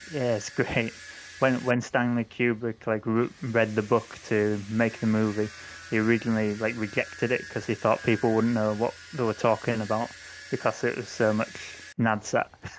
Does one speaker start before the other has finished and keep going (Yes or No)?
No